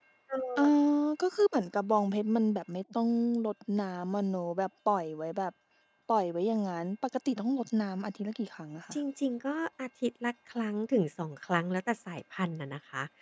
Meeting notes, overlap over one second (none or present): none